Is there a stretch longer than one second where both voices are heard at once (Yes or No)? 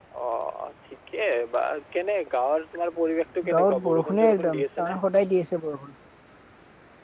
Yes